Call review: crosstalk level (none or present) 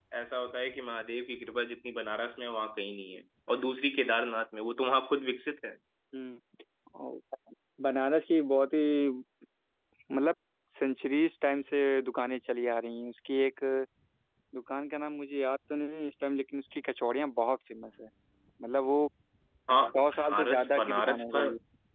present